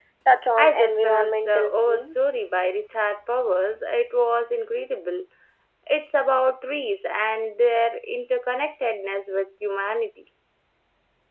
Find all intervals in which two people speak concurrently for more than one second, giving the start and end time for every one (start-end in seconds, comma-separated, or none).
0.6-2.1